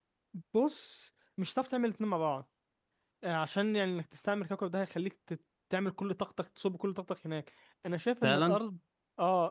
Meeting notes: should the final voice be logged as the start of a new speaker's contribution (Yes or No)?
No